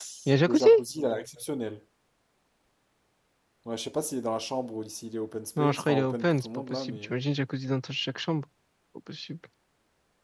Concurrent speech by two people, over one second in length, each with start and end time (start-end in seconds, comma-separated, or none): 5.6-7.1